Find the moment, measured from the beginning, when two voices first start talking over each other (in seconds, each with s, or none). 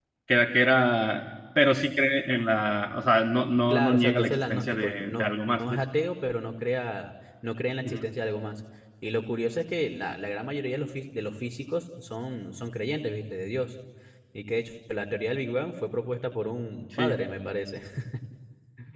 3.7 s